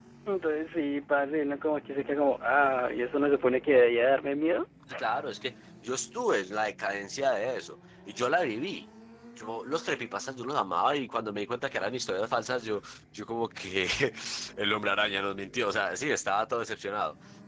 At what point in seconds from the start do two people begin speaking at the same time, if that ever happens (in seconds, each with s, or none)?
none